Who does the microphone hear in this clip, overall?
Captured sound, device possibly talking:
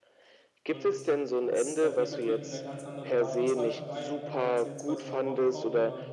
both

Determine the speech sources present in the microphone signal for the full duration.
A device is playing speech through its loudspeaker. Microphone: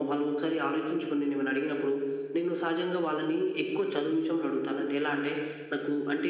echo only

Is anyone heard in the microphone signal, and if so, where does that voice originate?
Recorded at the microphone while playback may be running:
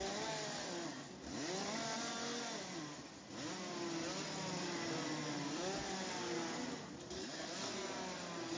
neither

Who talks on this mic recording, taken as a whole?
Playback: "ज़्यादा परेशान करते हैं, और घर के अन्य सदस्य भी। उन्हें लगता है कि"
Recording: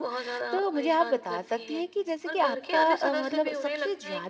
both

